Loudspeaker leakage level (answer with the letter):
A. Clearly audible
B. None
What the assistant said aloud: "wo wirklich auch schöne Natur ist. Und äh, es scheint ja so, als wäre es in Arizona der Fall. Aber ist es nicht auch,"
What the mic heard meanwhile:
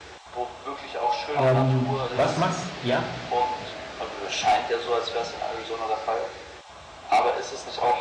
A